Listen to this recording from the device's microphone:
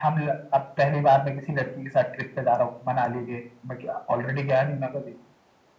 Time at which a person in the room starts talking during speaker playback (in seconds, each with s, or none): none